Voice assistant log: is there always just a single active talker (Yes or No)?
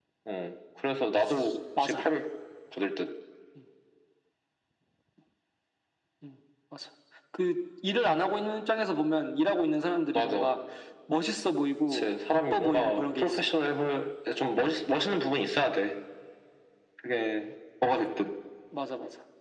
No